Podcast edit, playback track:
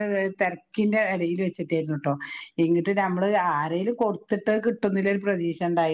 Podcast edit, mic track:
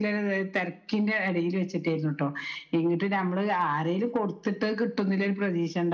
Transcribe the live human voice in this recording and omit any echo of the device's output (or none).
none